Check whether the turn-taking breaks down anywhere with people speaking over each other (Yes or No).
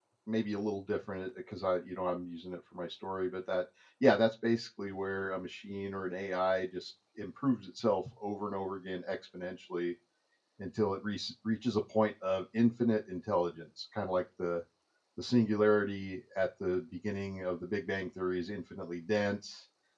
No